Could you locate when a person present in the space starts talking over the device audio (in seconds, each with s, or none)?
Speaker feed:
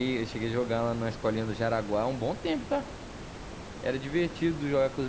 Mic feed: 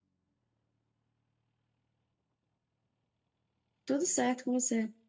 3.8 s